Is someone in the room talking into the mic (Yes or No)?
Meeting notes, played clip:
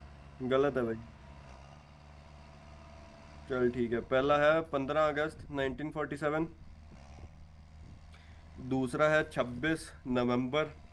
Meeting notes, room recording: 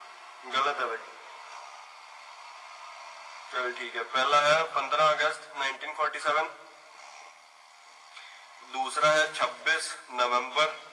No